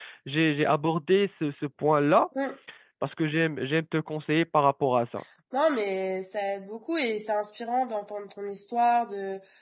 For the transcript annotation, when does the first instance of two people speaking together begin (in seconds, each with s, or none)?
none